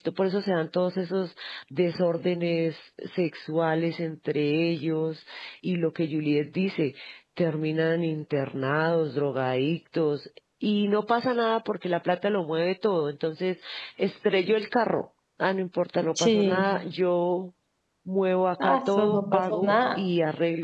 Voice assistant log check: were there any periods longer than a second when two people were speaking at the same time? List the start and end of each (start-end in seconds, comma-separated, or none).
18.6-20.0